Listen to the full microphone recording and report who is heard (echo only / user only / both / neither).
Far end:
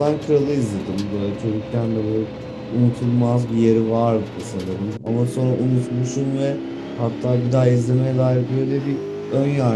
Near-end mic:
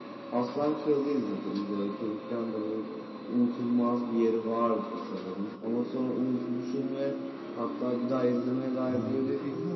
both